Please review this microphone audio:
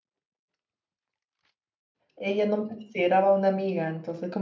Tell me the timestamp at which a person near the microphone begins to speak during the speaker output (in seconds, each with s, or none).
2.1 s